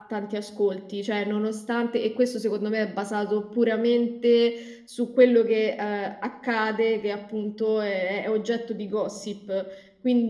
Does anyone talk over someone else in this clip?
No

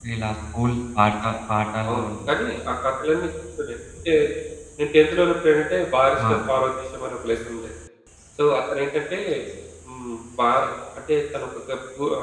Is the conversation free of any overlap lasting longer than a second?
Yes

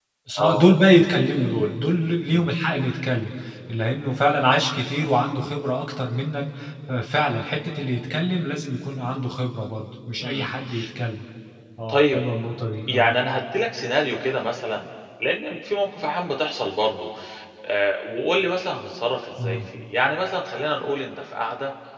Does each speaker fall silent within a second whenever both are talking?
Yes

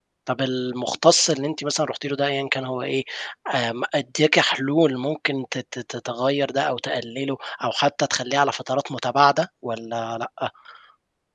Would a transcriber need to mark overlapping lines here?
No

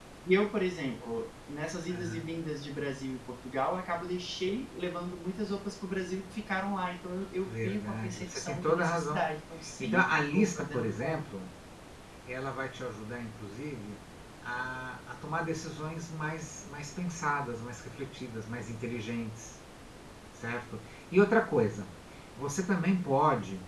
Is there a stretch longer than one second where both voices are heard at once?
Yes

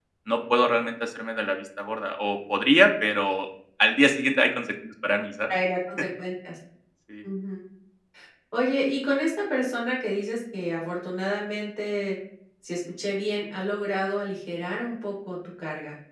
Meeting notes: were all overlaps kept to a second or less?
Yes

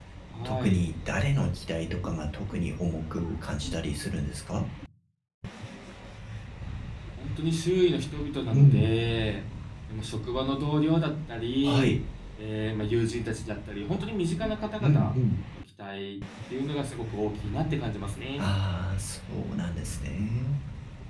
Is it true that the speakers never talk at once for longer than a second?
Yes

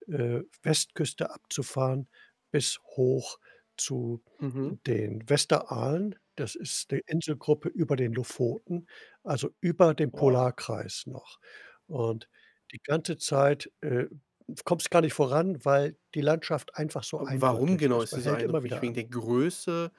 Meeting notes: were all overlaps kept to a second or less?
No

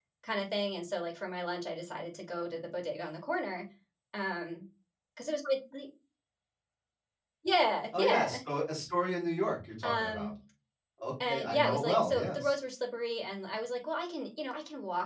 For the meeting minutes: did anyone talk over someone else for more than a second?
Yes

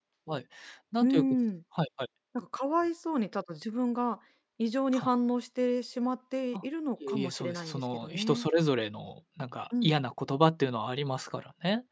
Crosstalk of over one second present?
Yes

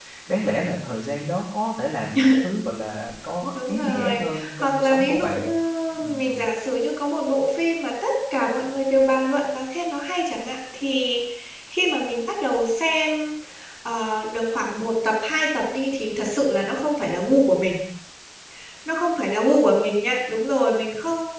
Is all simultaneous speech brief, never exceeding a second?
No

